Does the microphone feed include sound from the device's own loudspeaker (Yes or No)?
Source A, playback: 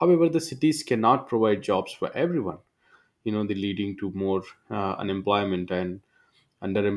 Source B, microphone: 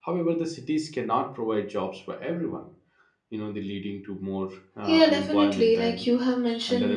Yes